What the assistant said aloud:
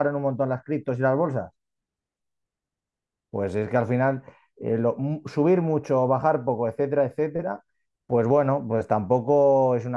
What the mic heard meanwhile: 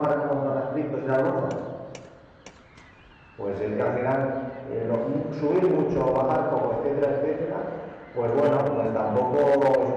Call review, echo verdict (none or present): present